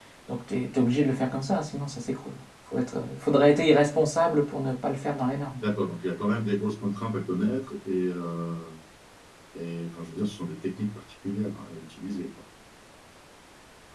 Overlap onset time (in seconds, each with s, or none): none